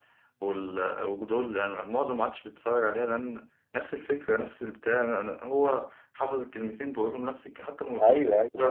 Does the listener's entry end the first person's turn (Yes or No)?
Yes